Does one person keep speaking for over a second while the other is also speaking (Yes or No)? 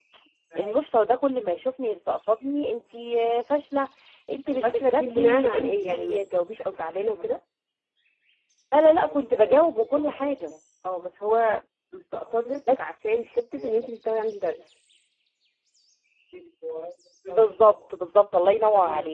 Yes